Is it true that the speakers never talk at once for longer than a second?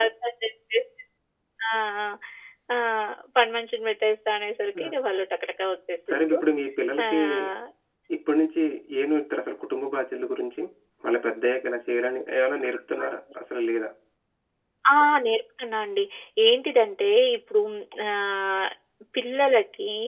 Yes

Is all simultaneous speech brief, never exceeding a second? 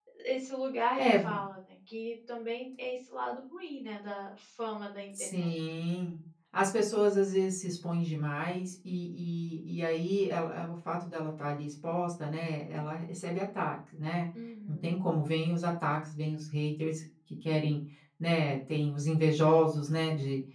Yes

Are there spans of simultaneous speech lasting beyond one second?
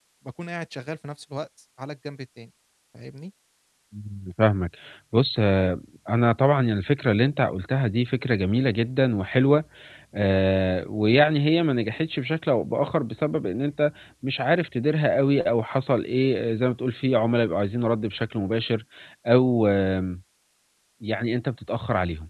No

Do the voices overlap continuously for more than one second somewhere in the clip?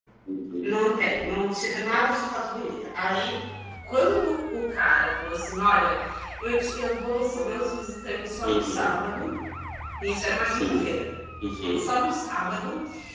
No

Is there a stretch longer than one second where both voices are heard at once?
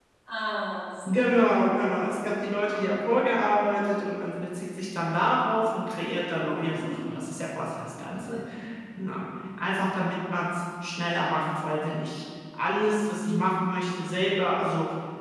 No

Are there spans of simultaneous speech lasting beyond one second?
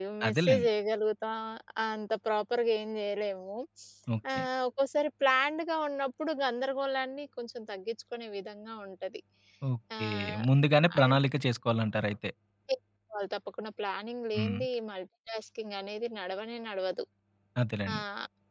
No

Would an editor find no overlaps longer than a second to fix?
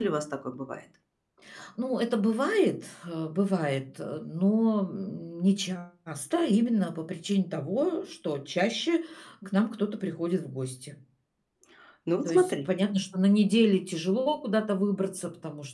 Yes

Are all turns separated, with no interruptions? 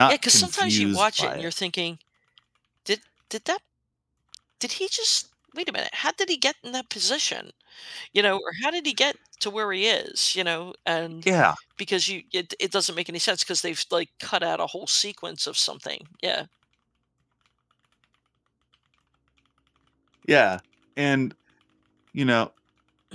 No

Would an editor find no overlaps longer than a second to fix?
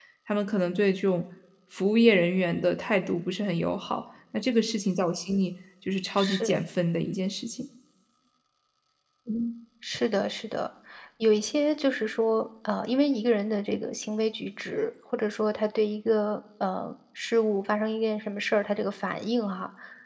Yes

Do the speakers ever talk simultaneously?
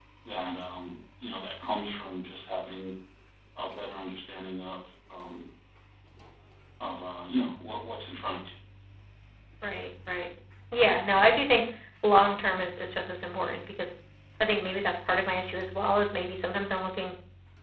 No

